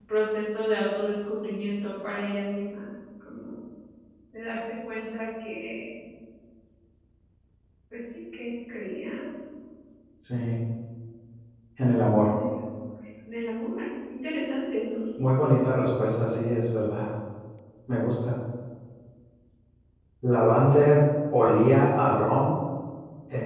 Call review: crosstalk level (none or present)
none